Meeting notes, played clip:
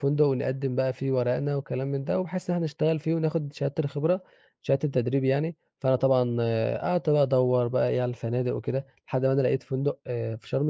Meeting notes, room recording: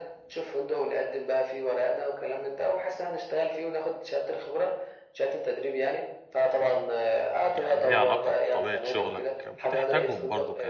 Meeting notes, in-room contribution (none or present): present